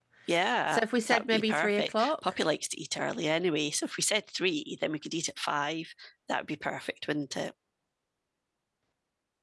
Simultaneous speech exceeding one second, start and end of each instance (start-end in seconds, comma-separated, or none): 0.7-2.1